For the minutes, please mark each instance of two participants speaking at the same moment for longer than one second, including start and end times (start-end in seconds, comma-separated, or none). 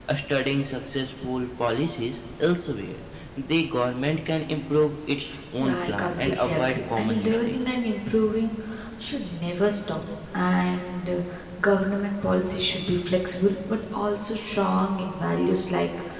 5.6-7.5